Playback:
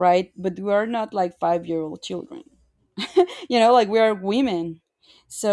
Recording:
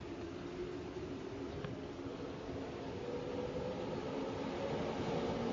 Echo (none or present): none